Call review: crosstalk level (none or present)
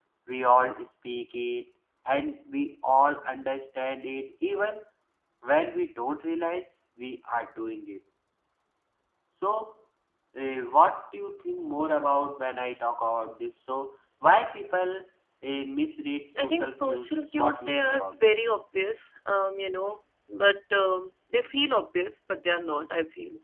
present